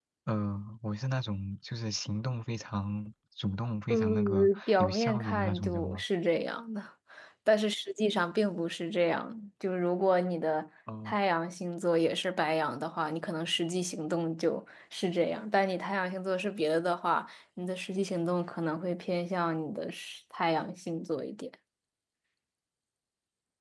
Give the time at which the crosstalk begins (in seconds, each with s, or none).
3.9 s